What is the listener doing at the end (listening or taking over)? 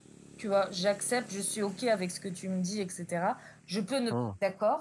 listening